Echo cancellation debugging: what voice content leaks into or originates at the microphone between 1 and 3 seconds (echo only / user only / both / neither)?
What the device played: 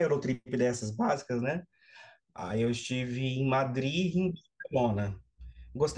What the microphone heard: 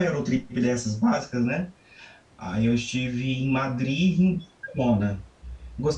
echo only